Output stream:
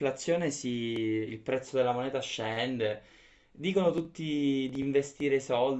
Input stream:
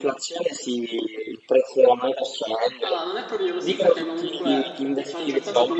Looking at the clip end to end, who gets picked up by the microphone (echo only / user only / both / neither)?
both